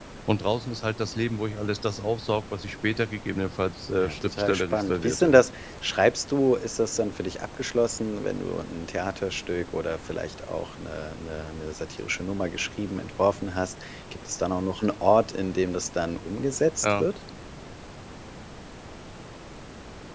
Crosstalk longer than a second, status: present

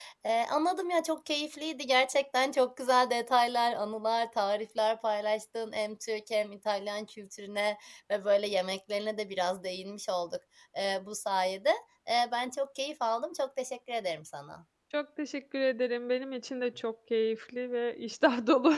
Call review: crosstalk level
none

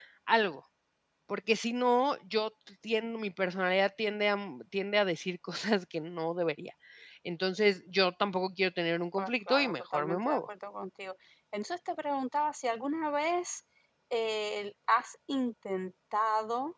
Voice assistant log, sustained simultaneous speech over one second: present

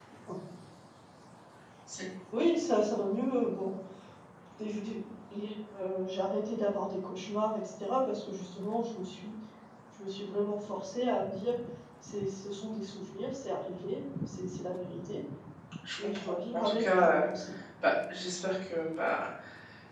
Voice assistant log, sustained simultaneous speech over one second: present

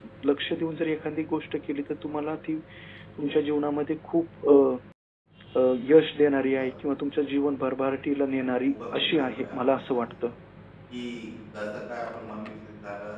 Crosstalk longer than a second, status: present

